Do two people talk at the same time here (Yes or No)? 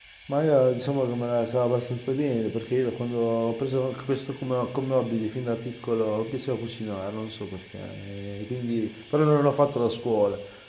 No